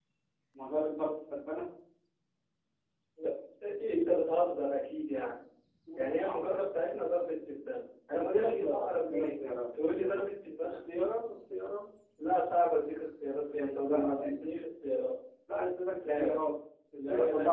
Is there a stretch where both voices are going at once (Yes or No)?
Yes